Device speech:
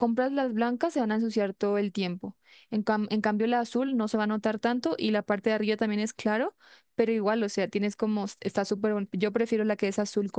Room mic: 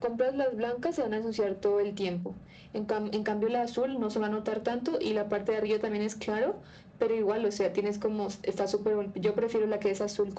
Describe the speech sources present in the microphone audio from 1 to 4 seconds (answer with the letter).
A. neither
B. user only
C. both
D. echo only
D